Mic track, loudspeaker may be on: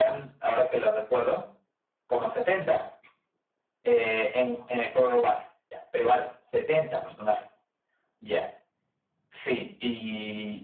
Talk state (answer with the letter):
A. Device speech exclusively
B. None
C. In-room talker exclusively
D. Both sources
A